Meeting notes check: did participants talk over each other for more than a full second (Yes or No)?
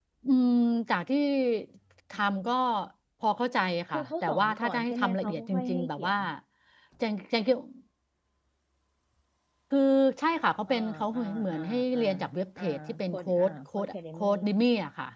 Yes